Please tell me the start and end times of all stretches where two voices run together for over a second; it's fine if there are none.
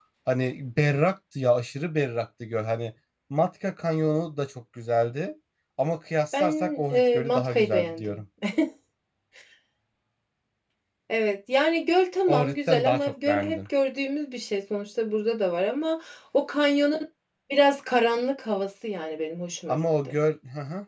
6.3-8.2, 12.3-13.6

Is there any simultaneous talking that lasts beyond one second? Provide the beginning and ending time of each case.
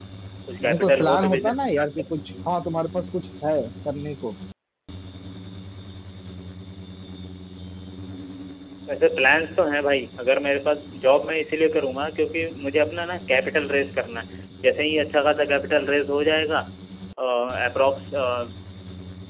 0.6-2.1

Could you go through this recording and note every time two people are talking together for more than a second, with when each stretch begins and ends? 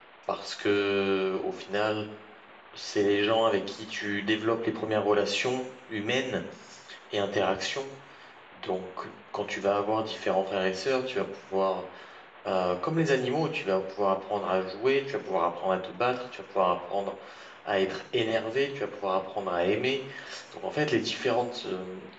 none

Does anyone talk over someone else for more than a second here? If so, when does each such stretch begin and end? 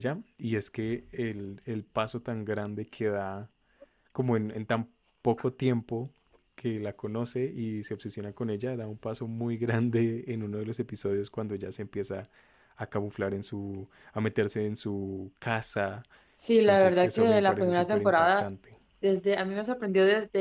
16.6-18.5

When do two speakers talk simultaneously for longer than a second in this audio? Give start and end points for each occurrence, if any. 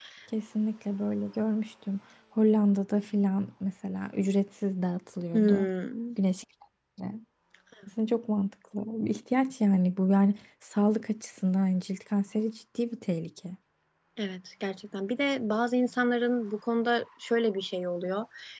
none

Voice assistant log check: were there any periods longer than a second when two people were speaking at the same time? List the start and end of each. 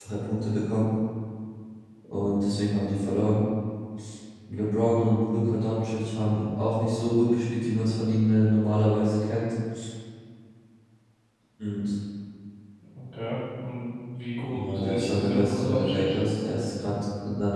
14.5-16.2

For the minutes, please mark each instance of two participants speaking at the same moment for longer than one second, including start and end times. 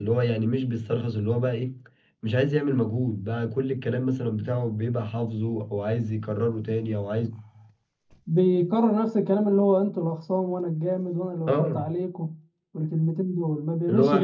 none

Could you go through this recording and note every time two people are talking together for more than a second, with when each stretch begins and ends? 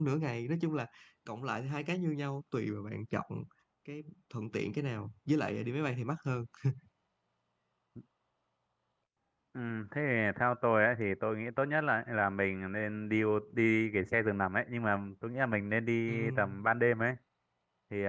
none

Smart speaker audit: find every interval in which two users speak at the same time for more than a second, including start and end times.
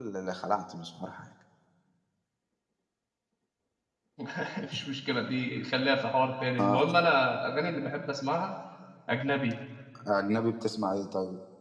none

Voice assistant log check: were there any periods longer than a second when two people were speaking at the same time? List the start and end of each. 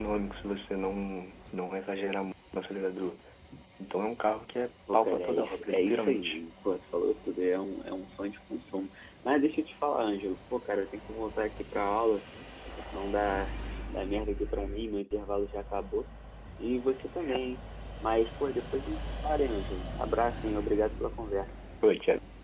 4.9-6.4

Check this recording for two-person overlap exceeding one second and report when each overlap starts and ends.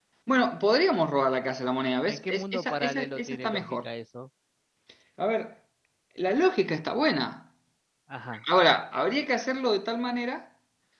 2.1-3.9

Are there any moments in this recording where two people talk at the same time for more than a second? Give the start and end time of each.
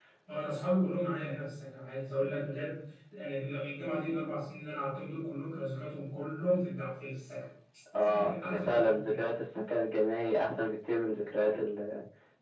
8.0-9.2

